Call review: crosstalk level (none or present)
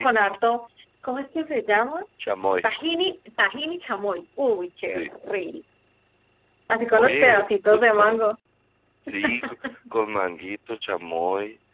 present